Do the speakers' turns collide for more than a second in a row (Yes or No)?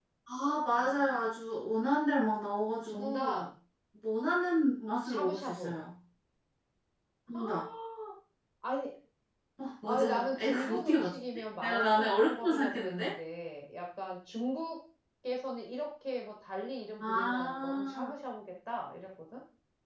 Yes